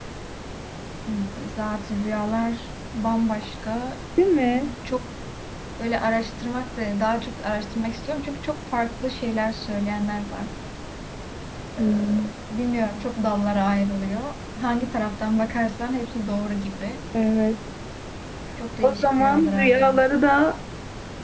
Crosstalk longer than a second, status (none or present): present